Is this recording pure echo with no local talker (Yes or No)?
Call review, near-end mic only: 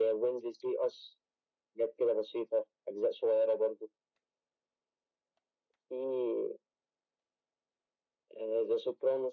Yes